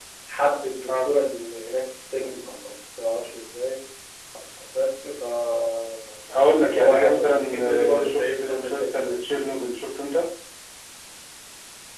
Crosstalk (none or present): present